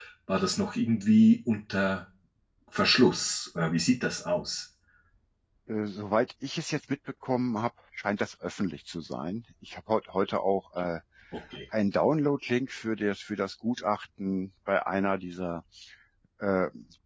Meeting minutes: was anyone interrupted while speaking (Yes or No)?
No